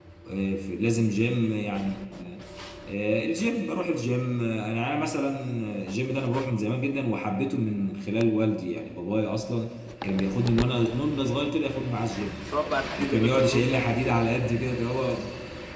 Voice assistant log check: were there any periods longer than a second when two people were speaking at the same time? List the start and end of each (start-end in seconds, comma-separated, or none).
13.0-14.2